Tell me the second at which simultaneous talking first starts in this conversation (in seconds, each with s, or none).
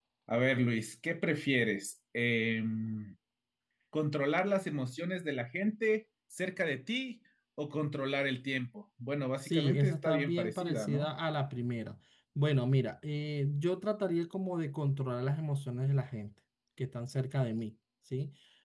9.4 s